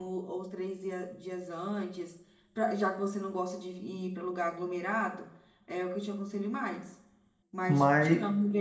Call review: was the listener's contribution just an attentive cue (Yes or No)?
Yes